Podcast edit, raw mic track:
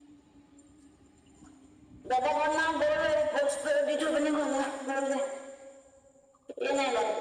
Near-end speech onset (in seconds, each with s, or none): none